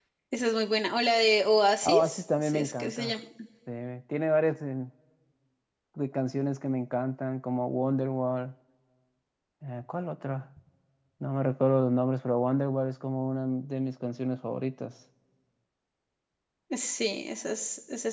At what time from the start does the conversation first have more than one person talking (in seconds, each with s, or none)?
1.8 s